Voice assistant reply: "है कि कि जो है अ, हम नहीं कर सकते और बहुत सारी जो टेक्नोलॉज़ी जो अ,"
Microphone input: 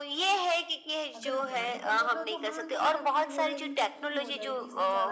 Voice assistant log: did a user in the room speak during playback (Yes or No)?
Yes